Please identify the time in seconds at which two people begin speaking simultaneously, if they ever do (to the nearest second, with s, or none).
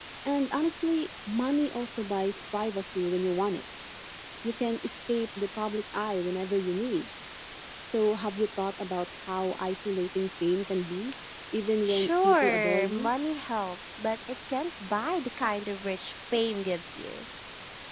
12 s